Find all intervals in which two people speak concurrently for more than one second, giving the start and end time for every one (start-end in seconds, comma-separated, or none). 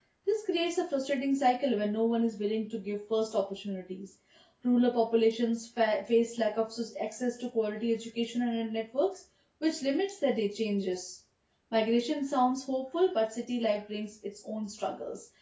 none